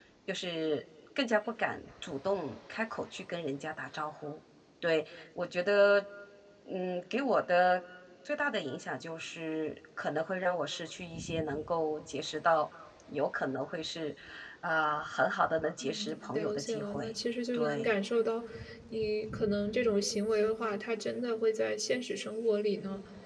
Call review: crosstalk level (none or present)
present